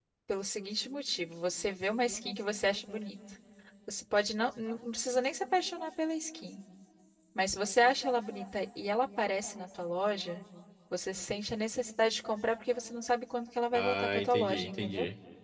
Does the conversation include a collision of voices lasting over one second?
Yes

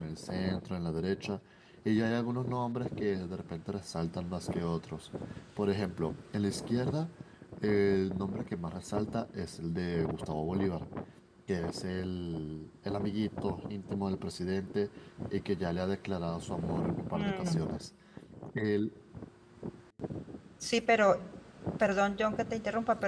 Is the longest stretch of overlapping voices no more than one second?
Yes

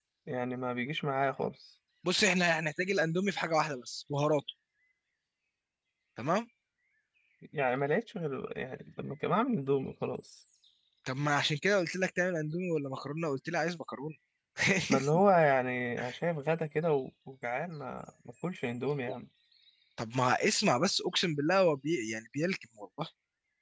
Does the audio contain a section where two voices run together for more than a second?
No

